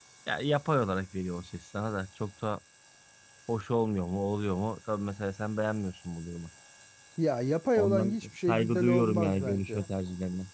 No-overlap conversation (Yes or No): No